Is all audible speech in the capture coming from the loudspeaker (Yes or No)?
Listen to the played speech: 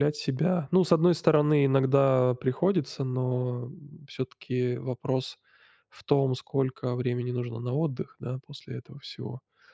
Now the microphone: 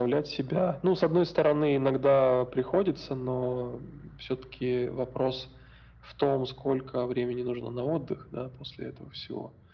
Yes